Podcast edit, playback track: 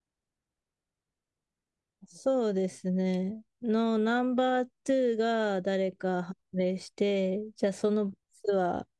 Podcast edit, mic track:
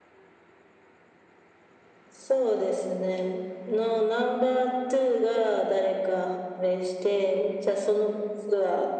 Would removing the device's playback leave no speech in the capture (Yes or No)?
Yes